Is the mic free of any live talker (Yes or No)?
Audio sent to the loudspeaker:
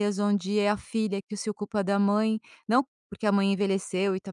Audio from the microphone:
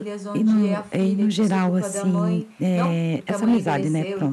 No